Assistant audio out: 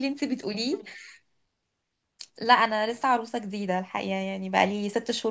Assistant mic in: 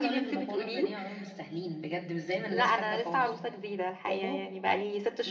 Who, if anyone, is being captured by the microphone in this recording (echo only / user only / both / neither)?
both